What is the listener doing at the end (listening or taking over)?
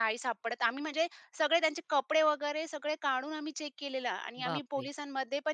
listening